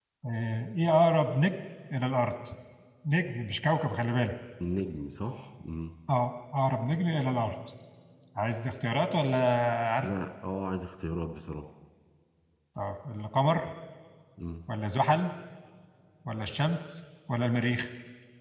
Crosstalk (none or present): none